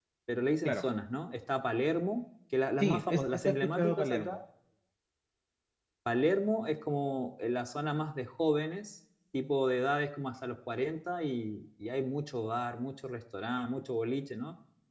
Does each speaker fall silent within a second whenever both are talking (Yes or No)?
No